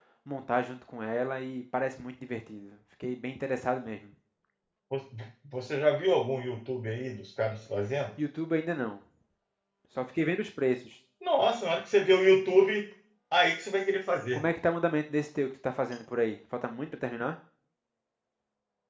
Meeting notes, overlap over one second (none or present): none